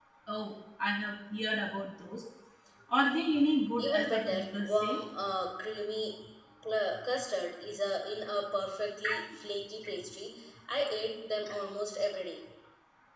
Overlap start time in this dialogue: 4 s

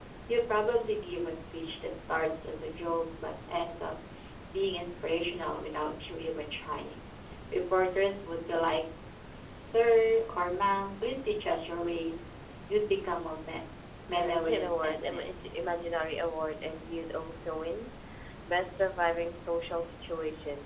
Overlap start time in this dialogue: 14 s

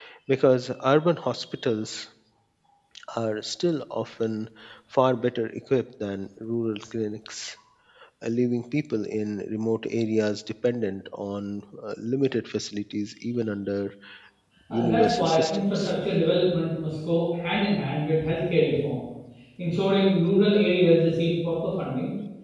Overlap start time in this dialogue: 15 s

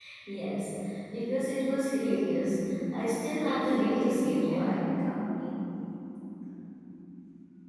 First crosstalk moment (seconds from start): 3 s

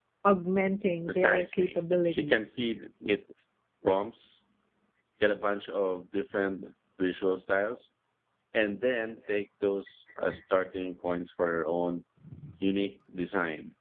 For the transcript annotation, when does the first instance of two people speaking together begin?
1 s

